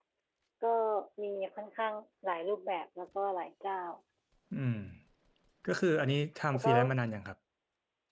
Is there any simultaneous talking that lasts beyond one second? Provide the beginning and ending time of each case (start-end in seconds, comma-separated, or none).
none